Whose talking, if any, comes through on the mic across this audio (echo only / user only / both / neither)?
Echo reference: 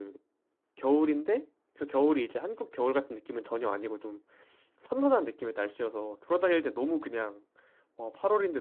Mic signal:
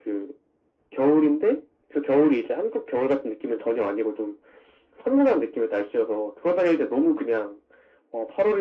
echo only